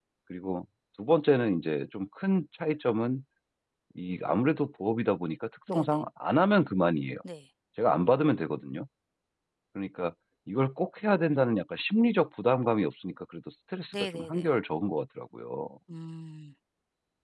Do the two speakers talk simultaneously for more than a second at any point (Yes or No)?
No